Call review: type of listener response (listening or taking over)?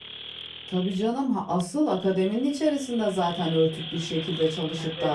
listening